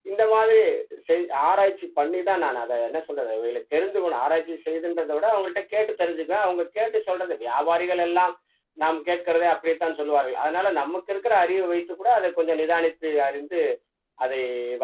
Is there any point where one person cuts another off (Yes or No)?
No